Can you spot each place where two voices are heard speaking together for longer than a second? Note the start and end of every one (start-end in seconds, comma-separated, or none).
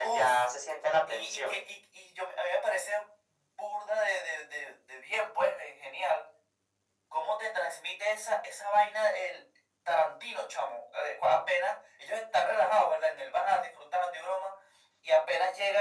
none